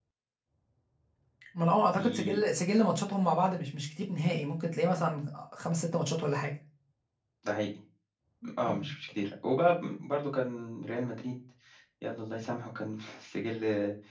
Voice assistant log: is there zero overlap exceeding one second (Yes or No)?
Yes